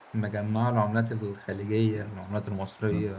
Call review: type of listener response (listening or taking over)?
taking over